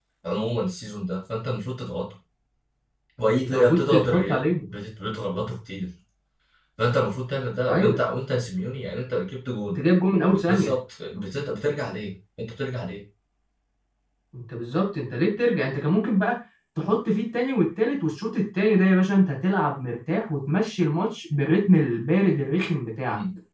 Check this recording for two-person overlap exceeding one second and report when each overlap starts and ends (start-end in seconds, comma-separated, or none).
3.4-4.7